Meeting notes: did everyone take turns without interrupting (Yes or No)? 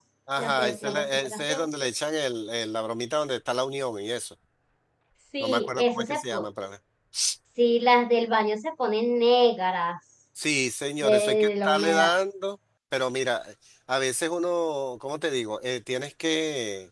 No